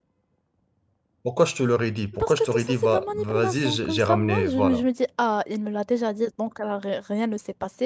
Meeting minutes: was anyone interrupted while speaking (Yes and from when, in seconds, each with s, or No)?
Yes, from 2.1 s